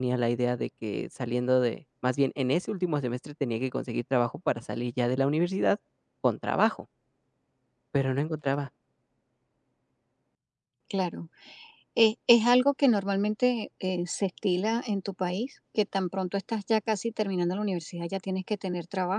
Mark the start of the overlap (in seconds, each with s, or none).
none